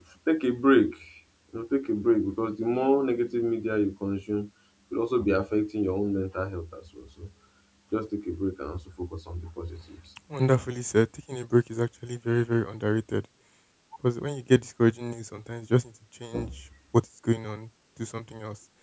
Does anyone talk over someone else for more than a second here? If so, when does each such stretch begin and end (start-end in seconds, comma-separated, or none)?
none